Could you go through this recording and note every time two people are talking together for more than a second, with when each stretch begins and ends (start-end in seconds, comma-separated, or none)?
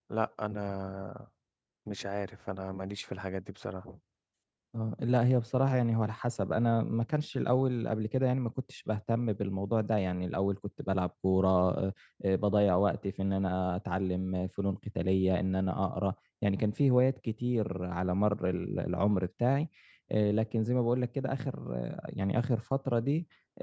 none